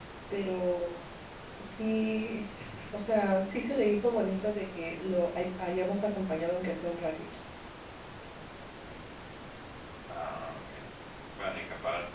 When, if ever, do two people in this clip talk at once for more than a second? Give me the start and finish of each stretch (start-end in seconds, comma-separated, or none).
none